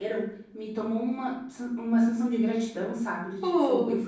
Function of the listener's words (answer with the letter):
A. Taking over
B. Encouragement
B